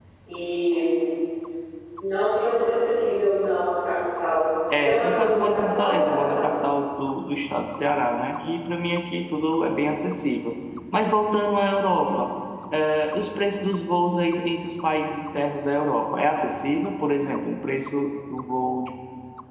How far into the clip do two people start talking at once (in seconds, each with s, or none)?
4.7 s